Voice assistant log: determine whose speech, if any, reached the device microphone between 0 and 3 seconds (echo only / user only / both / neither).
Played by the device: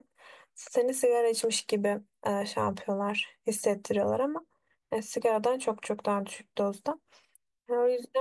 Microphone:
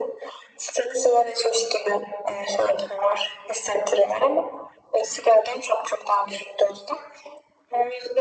echo only